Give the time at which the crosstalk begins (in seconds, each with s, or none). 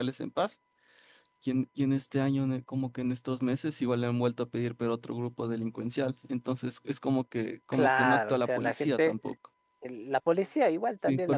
7.7 s